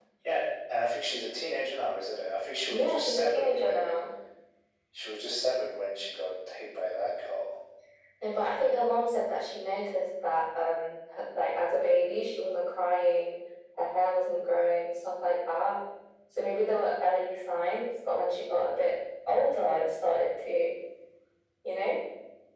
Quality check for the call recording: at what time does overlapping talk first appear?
3 s

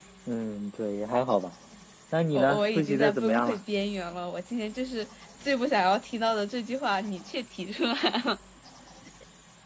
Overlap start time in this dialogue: 2 s

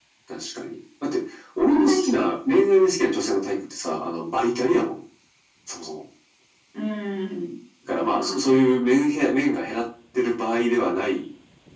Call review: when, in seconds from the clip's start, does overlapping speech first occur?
2 s

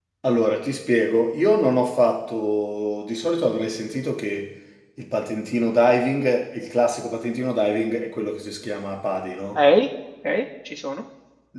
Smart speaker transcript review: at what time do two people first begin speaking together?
none

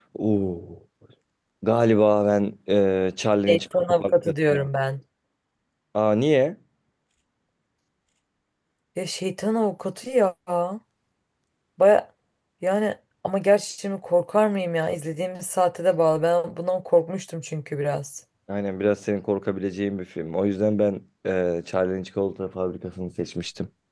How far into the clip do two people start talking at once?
3 s

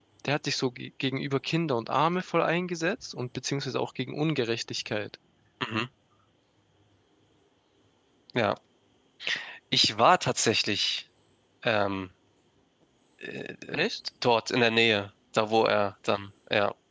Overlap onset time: none

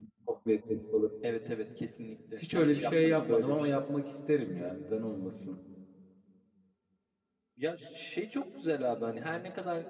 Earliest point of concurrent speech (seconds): 2 s

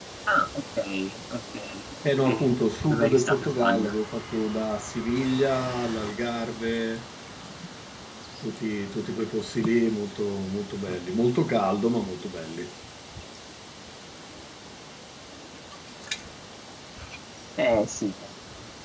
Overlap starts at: 2 s

